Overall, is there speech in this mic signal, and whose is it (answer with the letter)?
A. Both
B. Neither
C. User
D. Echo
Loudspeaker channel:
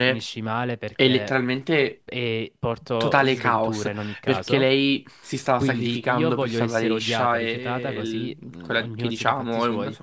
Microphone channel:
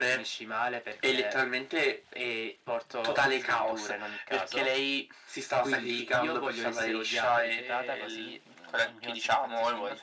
D